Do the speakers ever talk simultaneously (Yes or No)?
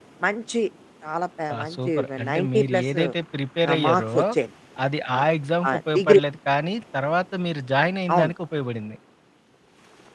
Yes